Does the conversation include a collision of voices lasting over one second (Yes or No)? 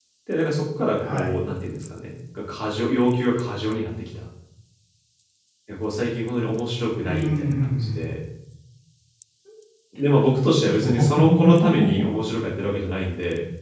Yes